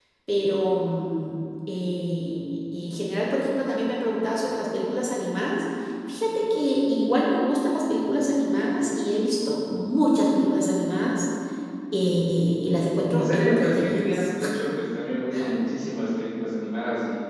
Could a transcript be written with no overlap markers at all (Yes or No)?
No